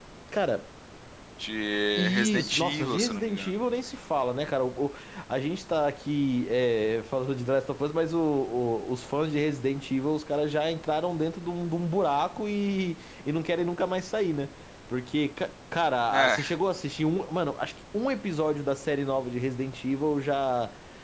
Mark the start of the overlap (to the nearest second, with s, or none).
2 s